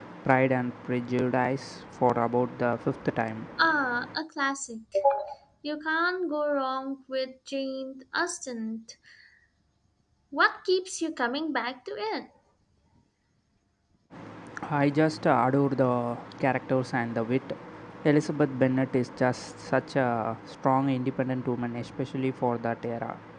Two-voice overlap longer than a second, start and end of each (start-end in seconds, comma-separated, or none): none